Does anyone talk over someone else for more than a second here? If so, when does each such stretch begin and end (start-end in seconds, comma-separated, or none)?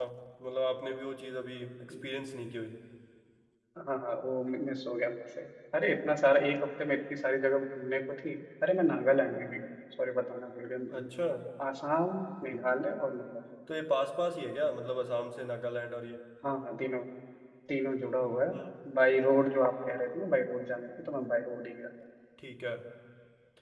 none